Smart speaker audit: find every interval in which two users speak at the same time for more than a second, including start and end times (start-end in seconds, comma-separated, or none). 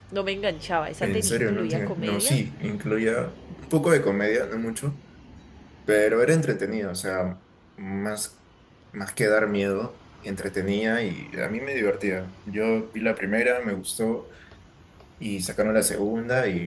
1.0-2.4